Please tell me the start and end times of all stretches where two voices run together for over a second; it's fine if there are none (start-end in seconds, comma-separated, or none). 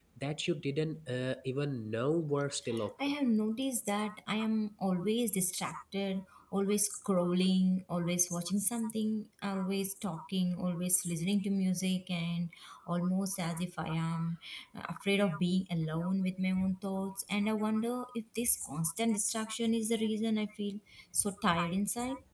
none